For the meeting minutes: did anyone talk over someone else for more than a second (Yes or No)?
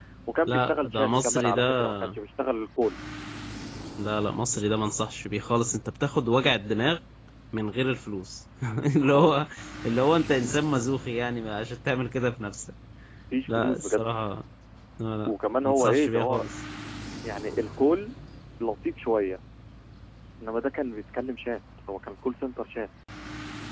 Yes